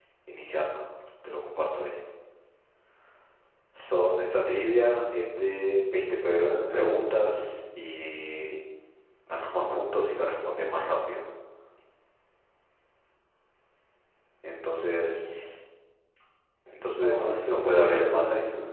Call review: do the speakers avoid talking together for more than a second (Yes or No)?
No